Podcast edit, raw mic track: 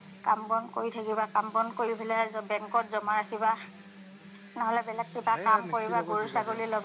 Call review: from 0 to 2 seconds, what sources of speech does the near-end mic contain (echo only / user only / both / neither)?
echo only